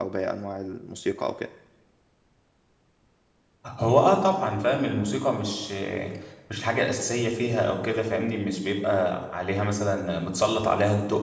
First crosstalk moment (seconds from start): none

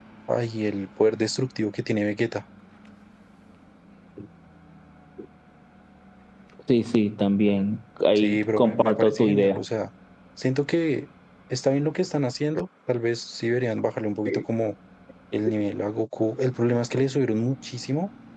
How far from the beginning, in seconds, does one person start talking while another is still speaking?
8.2 s

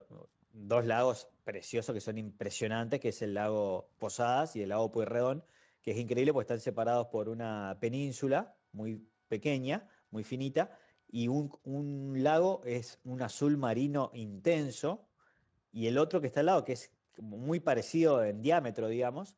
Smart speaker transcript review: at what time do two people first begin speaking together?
none

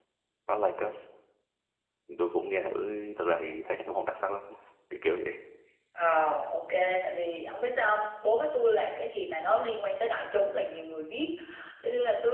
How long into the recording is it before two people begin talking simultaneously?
none

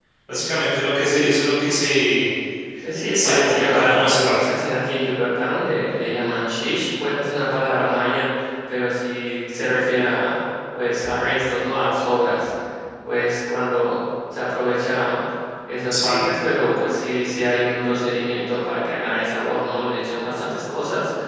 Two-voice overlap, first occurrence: 3.1 s

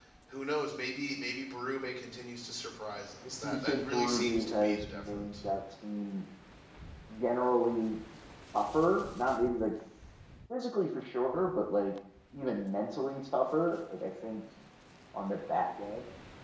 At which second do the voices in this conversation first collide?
3.2 s

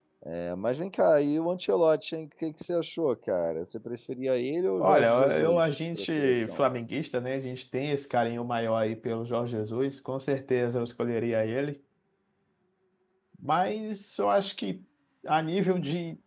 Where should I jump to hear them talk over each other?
4.8 s

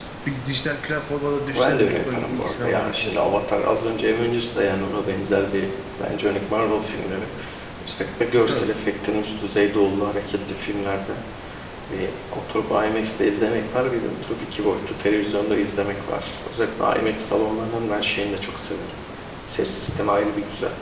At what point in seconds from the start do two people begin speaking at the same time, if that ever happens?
1.6 s

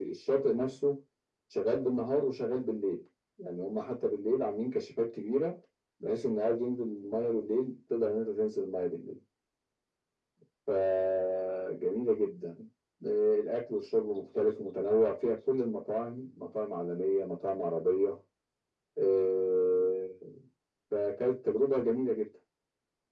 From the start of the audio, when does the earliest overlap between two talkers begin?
none

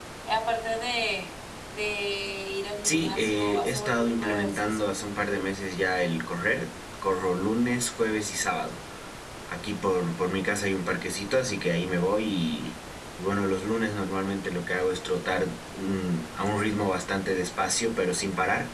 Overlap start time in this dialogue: 2.8 s

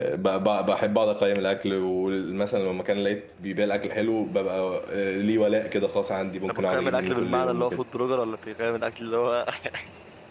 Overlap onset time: 6.5 s

